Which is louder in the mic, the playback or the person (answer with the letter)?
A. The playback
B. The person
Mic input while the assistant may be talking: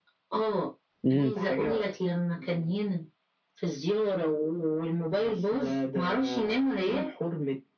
B